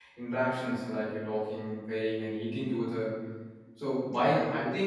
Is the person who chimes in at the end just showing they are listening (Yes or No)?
Yes